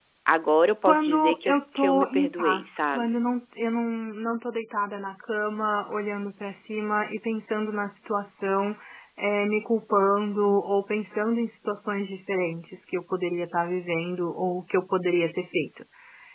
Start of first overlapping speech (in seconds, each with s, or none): 0.8 s